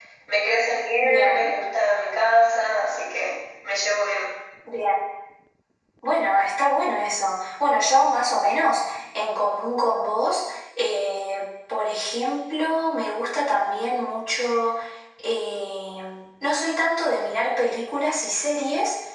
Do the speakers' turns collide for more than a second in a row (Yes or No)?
No